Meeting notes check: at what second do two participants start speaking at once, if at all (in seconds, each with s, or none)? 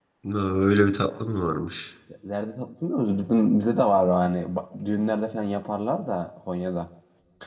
none